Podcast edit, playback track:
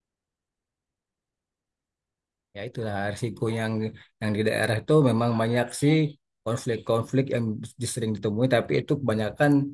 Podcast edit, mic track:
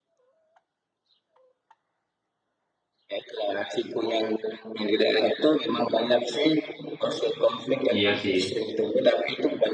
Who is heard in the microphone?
both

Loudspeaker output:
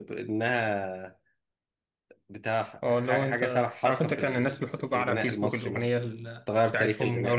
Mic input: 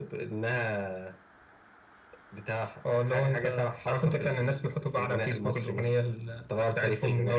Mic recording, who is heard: echo only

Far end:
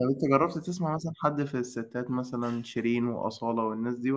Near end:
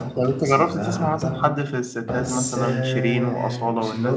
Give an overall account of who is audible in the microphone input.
both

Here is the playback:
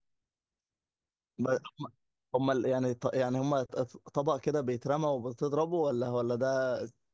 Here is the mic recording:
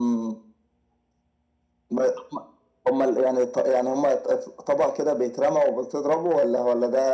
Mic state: echo only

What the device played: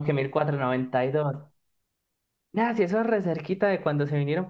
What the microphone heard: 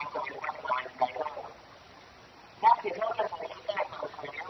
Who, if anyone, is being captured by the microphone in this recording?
echo only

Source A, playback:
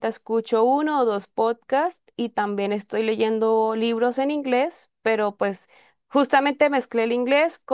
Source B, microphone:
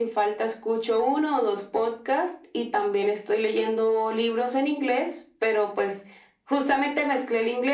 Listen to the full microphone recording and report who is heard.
echo only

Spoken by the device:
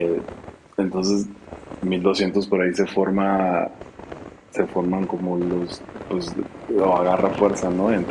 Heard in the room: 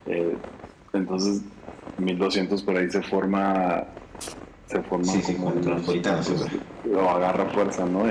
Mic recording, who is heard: both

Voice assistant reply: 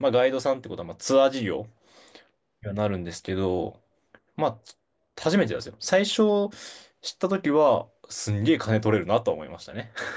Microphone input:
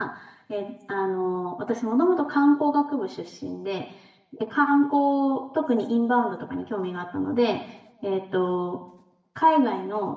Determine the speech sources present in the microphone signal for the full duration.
user only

